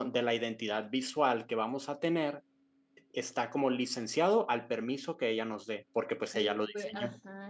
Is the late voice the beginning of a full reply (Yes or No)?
Yes